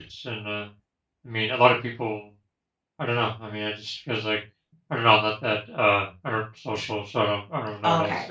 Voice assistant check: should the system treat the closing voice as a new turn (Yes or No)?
Yes